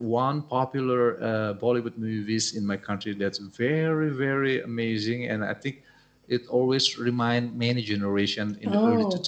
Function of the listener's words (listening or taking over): listening